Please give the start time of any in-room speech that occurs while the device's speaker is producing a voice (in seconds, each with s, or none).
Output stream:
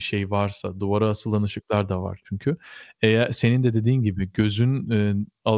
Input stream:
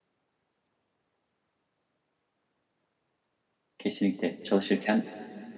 3.8 s